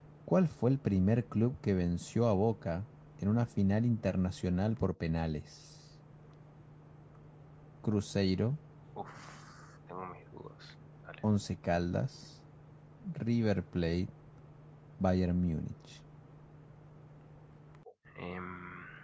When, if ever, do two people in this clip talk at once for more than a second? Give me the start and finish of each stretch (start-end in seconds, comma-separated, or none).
none